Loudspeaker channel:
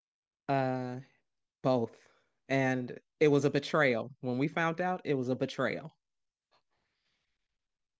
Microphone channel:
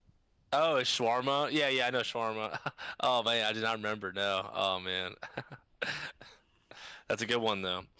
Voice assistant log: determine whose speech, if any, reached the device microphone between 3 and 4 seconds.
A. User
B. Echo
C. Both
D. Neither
A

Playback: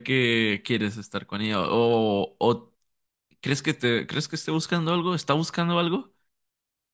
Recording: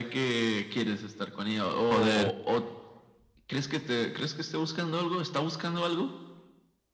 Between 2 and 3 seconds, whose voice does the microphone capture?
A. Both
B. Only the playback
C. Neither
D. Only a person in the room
A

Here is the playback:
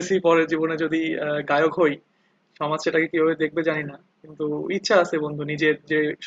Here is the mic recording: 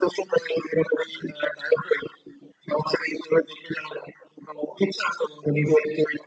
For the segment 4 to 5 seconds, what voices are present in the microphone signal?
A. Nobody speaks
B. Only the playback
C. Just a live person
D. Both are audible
B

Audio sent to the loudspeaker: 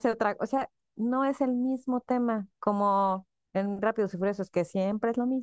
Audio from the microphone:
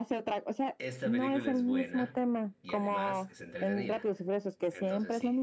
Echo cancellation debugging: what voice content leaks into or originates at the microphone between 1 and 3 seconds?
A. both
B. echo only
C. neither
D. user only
A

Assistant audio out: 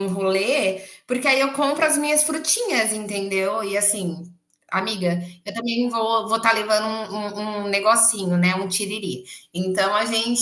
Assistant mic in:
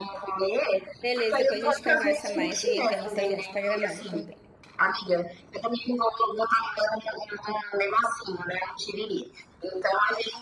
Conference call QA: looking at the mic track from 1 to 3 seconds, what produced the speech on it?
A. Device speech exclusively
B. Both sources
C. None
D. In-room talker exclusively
B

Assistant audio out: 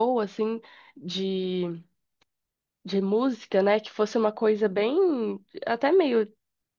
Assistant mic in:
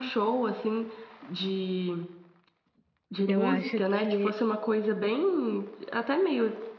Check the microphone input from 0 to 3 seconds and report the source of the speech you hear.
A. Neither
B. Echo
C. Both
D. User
B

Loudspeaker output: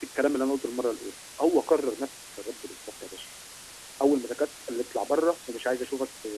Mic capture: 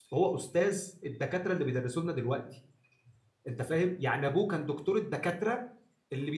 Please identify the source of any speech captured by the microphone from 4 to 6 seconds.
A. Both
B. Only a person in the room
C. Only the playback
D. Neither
B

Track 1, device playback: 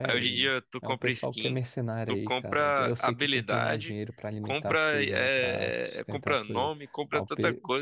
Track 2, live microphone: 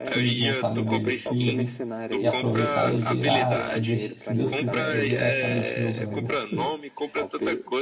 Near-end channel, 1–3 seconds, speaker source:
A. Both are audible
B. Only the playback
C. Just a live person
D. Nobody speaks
A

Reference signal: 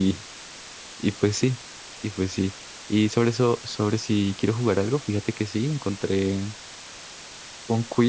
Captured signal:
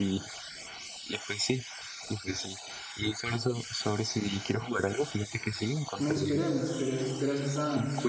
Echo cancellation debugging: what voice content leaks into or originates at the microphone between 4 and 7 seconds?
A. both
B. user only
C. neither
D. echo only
A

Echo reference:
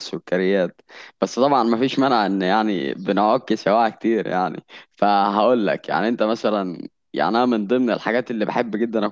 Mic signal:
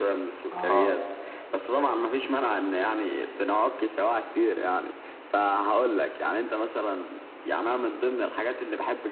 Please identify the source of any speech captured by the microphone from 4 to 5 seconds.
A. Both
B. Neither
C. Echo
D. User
C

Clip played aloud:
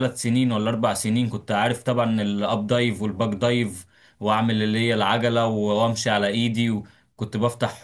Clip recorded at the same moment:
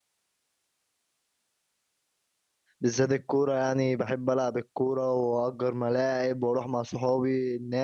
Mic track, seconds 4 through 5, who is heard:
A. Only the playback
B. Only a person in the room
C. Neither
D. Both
B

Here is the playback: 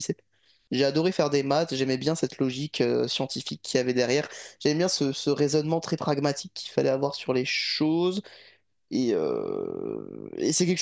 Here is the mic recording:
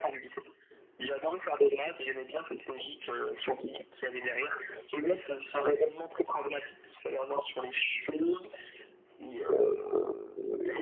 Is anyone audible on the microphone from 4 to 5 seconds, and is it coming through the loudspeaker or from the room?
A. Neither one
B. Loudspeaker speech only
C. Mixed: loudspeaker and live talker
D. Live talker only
B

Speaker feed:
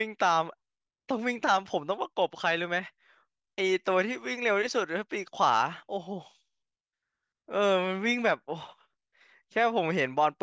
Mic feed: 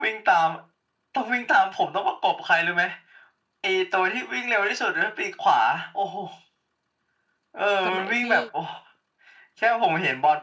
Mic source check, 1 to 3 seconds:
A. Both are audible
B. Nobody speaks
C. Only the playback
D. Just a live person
C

